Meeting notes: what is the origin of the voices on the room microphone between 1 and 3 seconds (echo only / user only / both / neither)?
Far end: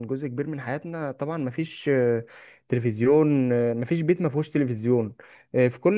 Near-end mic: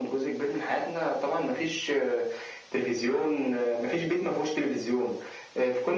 echo only